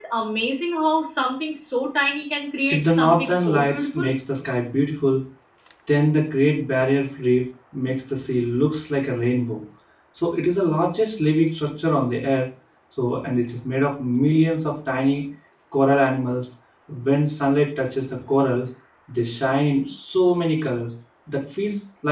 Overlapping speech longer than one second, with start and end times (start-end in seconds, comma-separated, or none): 2.7-4.1